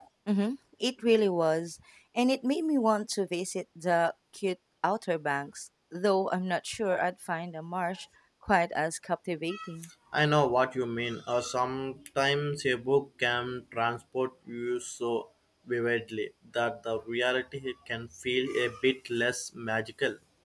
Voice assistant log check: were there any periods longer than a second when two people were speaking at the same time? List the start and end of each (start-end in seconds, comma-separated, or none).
none